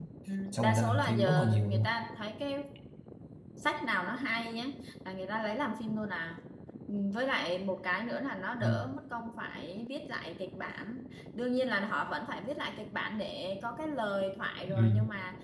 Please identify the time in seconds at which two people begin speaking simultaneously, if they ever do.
0.5 s

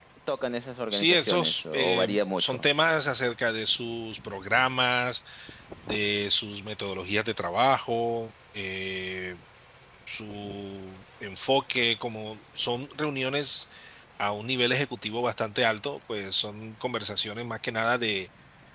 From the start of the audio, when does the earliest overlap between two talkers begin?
0.9 s

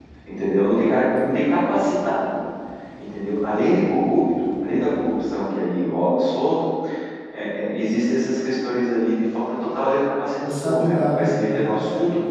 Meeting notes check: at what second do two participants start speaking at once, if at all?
10.3 s

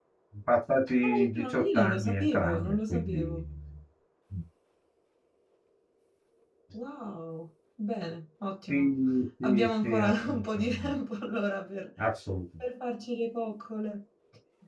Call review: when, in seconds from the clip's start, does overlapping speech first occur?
1.0 s

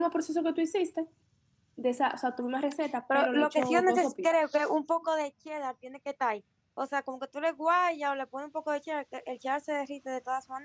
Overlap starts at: 3.1 s

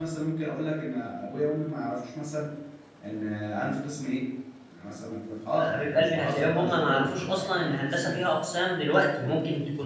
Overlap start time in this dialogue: 5.6 s

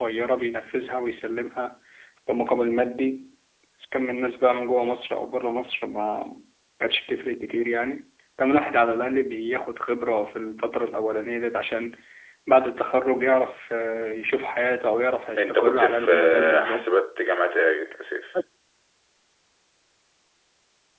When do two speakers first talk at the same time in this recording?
15.4 s

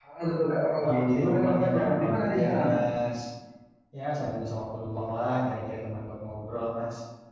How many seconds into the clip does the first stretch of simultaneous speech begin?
0.8 s

